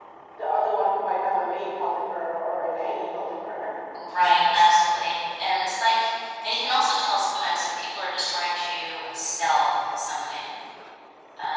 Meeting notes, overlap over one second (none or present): none